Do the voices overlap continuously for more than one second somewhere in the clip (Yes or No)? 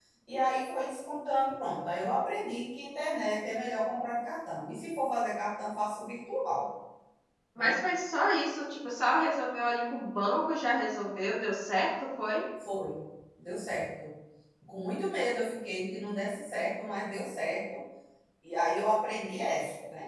No